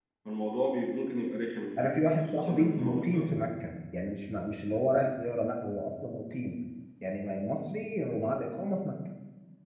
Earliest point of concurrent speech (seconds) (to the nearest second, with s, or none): 2 s